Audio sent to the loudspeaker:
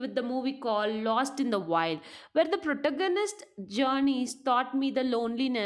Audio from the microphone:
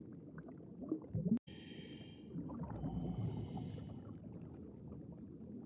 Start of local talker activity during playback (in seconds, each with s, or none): none